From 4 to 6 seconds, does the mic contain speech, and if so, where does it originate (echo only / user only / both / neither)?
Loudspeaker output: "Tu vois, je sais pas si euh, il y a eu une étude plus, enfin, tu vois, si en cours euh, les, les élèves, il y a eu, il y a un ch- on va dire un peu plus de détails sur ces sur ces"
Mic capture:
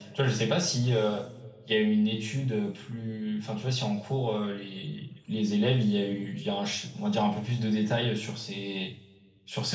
echo only